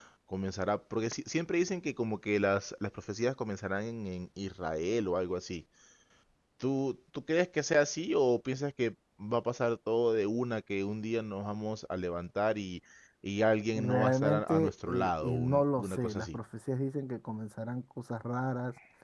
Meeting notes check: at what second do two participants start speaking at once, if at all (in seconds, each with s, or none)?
13.7 s